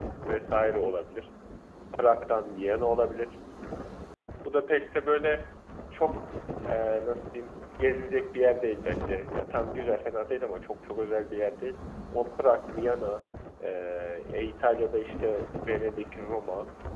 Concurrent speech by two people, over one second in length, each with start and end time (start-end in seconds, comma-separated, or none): none